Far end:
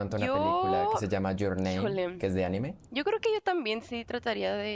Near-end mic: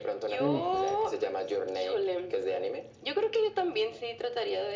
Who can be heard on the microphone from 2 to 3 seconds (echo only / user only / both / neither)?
echo only